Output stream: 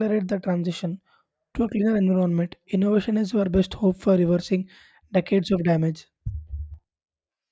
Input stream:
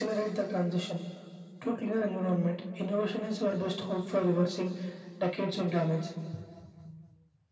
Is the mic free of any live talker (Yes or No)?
Yes